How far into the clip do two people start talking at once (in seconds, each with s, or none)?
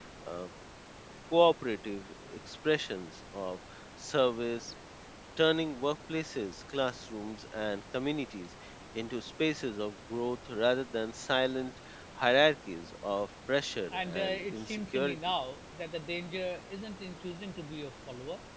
13.9 s